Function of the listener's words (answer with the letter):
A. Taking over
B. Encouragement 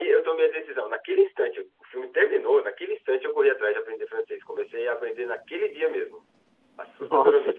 B